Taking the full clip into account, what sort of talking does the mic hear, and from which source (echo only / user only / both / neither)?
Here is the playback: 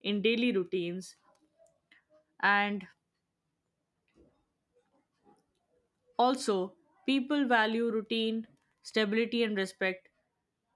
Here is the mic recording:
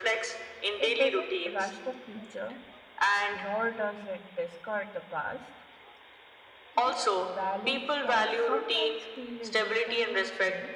both